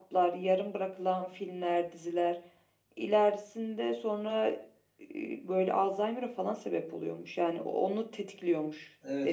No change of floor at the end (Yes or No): No